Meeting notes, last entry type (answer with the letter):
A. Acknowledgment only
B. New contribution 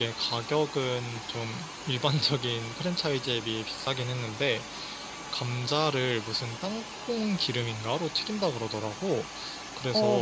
A